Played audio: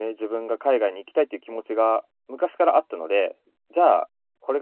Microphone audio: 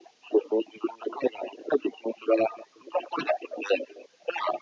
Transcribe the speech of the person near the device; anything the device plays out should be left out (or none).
none